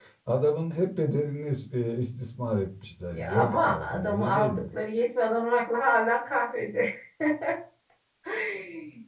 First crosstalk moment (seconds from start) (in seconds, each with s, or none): 3.1 s